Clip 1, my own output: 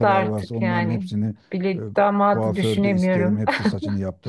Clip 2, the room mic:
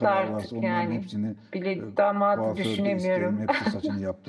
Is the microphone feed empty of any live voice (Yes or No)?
Yes